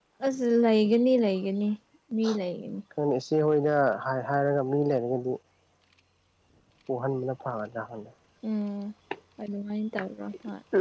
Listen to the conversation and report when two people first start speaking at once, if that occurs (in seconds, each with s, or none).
none